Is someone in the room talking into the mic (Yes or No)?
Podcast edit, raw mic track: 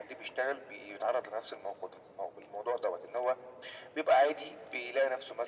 No